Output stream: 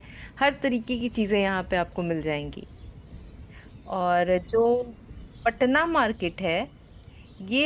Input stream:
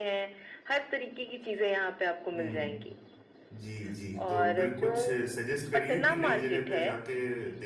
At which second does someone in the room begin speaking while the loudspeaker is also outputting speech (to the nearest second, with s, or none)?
2 s